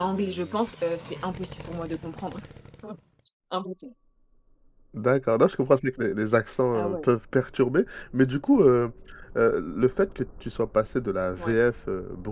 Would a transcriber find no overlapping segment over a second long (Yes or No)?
Yes